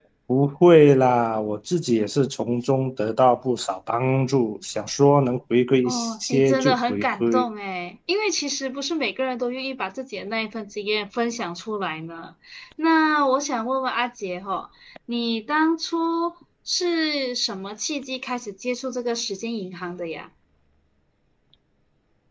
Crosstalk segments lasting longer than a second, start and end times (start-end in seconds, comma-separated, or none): 5.8-7.5